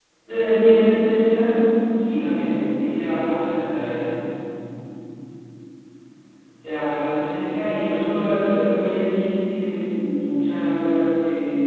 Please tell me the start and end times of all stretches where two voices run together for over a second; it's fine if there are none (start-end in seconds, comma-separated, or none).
none